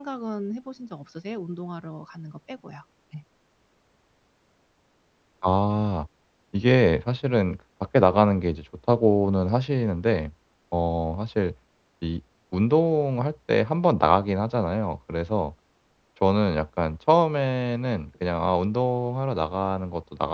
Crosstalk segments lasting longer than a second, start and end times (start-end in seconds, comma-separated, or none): none